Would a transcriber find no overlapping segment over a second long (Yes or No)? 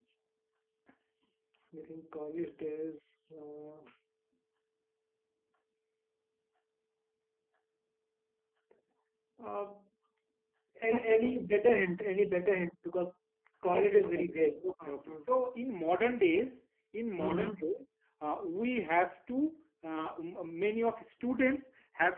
No